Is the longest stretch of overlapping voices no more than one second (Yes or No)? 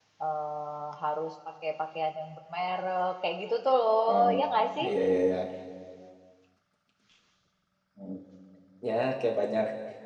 Yes